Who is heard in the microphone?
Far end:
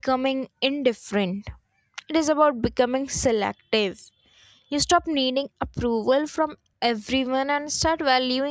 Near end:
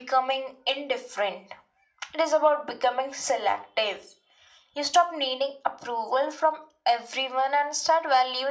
echo only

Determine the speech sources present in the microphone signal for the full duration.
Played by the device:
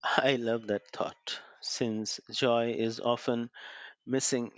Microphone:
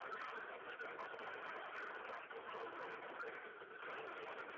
neither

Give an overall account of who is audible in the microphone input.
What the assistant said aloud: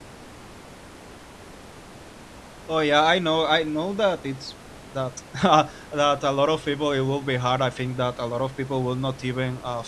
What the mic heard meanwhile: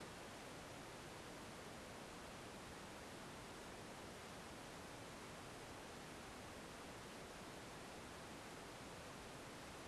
neither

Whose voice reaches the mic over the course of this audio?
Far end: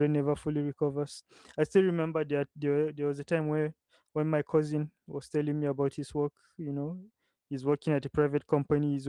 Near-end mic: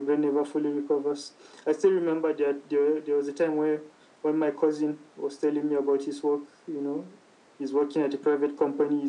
echo only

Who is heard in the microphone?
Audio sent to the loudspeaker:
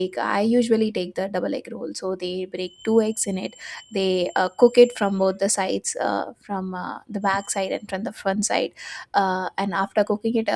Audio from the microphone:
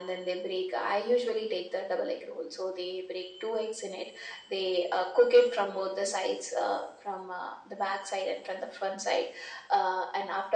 echo only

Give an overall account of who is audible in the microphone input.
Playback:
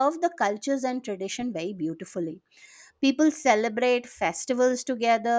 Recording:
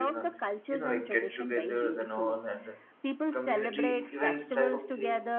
both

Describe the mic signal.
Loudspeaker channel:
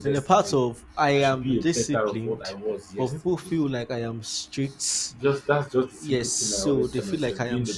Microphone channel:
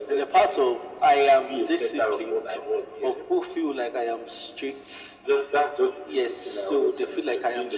echo only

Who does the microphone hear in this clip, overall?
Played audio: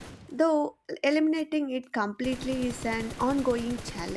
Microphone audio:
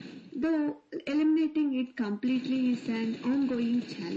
echo only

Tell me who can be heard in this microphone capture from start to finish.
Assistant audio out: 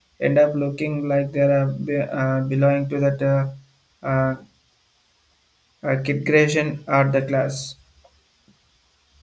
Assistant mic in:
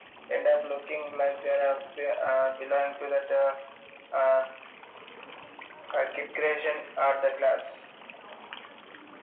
echo only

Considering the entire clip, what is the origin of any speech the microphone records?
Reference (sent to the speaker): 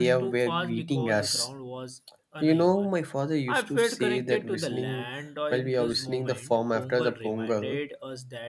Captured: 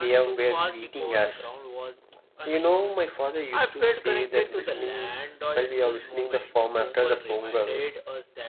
echo only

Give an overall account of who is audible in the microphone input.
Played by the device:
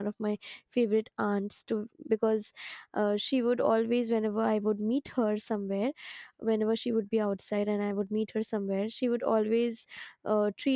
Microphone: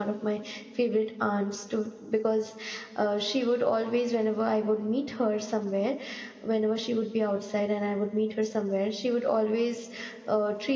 echo only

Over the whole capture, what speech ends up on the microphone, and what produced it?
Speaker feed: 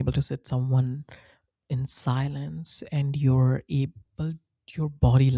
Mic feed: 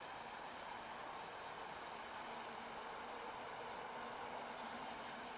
neither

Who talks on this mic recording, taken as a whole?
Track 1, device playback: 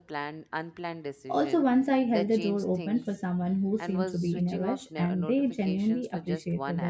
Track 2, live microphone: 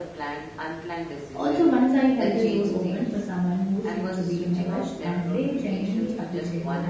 echo only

